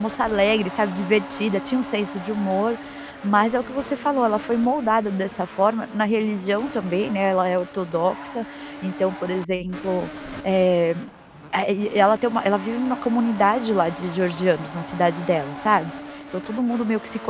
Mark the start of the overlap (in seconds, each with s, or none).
none